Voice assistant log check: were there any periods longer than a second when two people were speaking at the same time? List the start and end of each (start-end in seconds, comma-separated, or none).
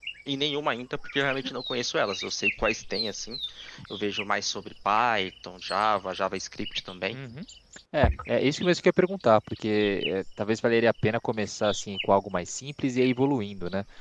none